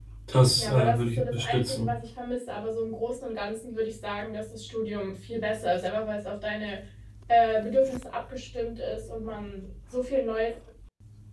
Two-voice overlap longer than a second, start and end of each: 0.6-1.9

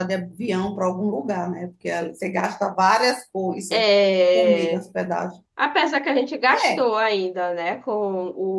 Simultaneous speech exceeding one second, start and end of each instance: none

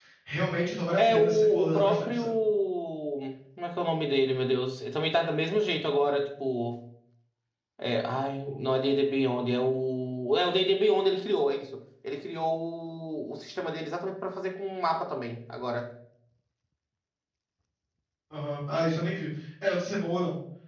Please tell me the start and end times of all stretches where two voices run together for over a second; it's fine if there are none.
1.0-2.2

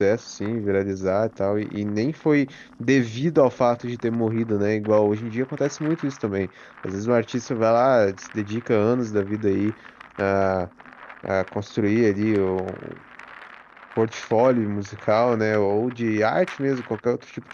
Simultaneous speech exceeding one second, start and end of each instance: none

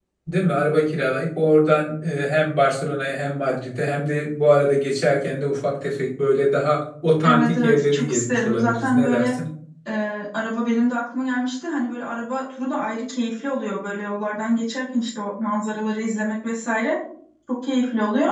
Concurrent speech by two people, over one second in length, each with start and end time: 7.2-9.3

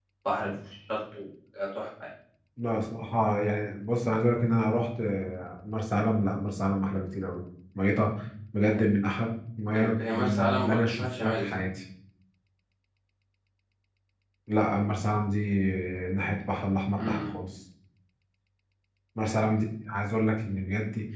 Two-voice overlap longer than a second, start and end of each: 9.7-11.6

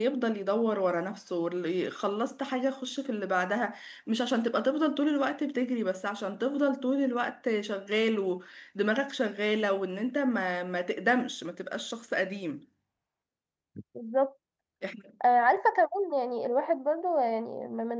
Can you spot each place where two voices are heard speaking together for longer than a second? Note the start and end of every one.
none

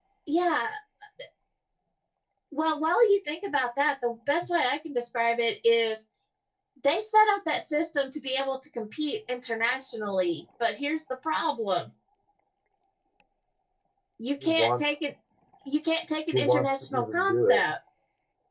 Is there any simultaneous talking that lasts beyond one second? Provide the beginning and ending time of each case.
16.3-17.6

